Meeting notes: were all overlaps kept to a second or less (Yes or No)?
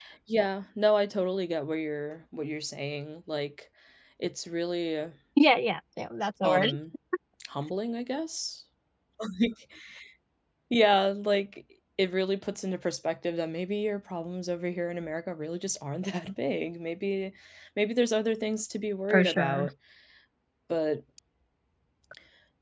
Yes